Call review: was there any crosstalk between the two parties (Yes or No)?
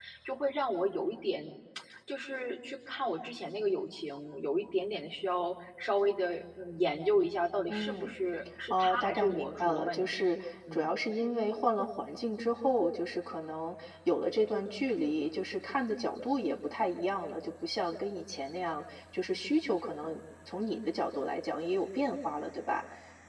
Yes